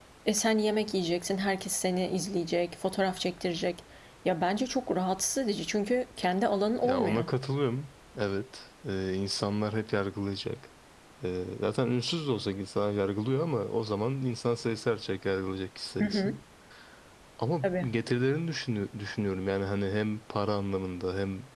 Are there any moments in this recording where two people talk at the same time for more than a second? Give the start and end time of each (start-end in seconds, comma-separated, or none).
none